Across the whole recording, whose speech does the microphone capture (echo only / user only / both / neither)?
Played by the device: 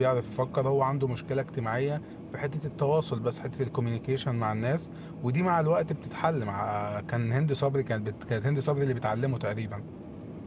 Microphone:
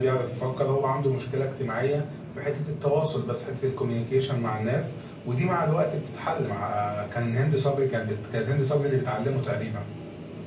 echo only